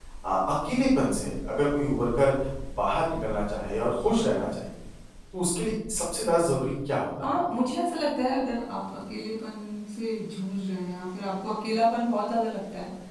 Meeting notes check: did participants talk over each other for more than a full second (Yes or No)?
No